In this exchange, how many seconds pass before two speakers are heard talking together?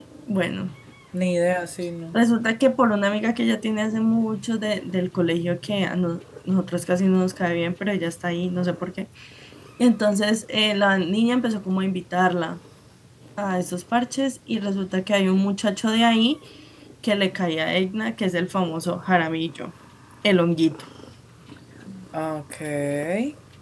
none

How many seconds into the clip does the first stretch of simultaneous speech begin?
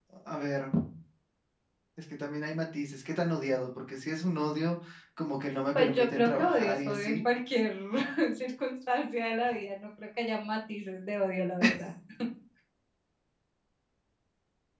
6 s

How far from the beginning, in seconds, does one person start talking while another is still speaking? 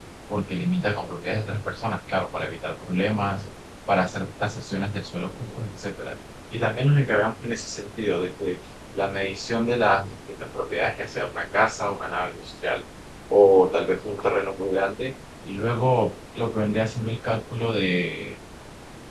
none

